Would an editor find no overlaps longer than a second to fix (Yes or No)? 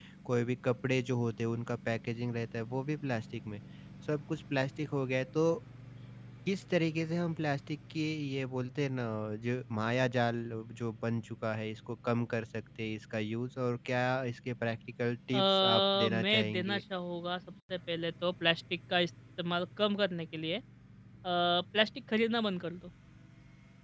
No